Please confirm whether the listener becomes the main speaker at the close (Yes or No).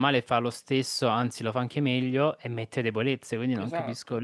Yes